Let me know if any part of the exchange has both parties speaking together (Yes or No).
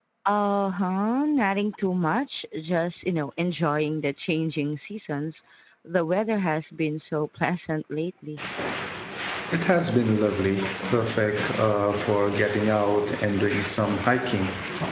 No